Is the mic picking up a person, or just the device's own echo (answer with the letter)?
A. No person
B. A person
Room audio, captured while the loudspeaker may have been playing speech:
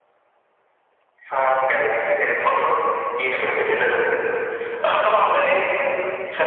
A